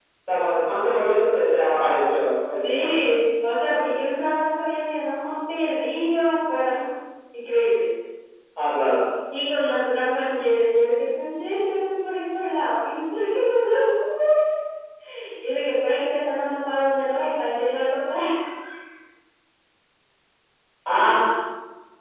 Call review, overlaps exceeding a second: none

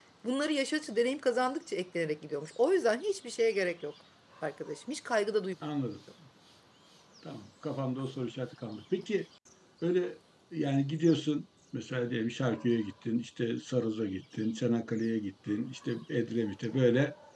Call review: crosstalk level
none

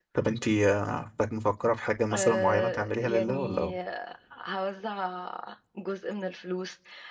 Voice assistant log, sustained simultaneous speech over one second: present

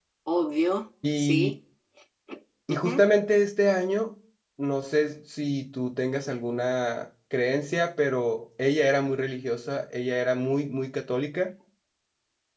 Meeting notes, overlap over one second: none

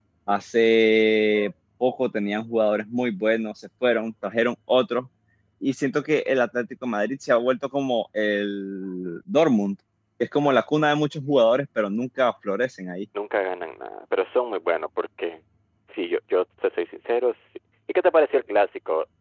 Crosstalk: none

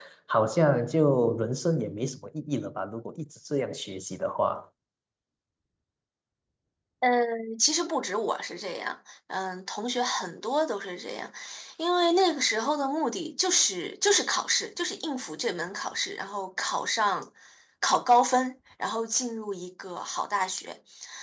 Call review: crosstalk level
none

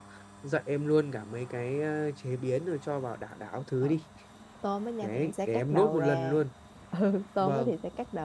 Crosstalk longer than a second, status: present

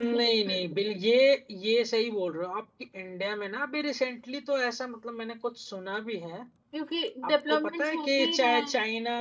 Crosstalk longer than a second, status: present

